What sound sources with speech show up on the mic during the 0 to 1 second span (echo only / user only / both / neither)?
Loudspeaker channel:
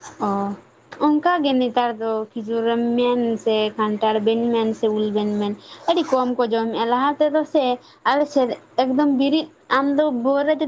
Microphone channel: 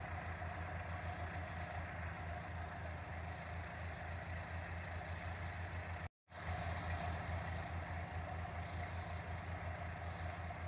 neither